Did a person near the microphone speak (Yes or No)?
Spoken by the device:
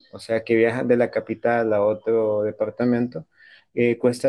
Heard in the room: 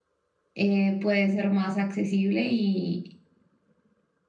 Yes